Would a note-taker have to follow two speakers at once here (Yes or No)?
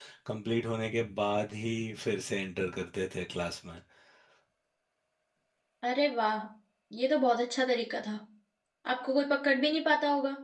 No